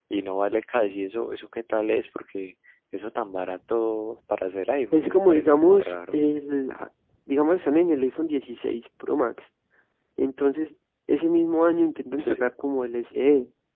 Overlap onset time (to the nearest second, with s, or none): 5 s